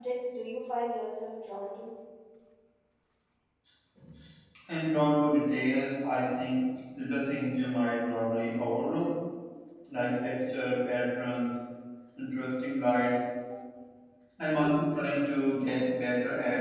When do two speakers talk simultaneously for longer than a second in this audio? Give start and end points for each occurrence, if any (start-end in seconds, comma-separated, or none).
none